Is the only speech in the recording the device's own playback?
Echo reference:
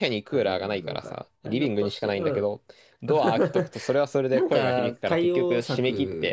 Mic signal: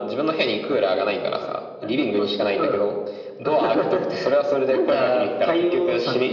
Yes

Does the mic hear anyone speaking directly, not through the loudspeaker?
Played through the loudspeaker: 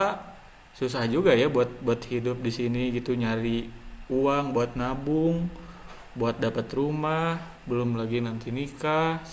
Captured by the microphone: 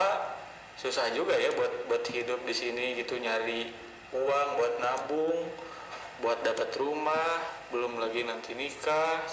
No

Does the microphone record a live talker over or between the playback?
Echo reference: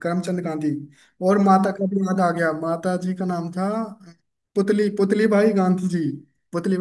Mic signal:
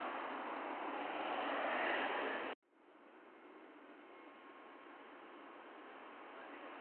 No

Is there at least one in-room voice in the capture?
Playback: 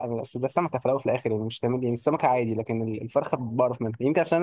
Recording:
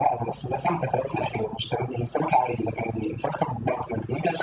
No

